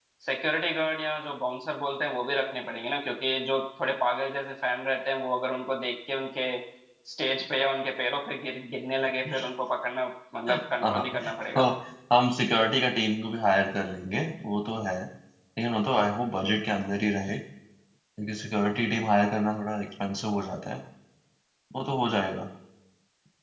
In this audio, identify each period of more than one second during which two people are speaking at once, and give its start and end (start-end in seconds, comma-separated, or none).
none